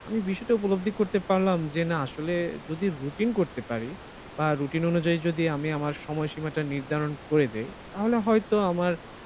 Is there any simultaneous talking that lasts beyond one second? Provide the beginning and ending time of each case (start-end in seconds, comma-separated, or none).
none